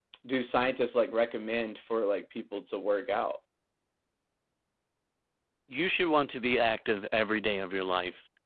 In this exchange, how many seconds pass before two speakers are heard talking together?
none

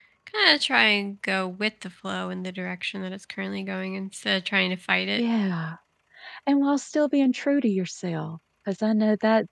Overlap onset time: none

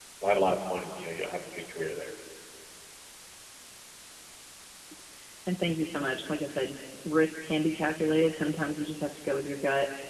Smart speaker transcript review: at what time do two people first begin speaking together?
none

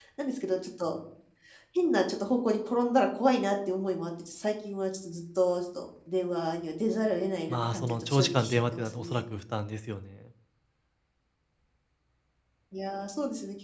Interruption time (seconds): 7.5 s

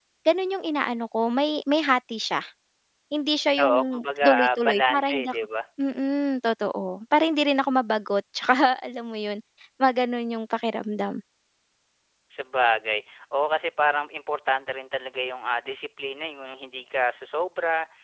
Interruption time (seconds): 3.6 s

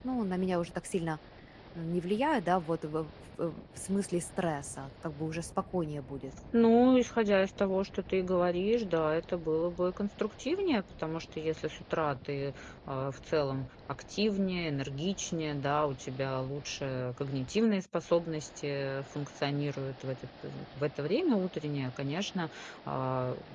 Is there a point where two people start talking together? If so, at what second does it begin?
none

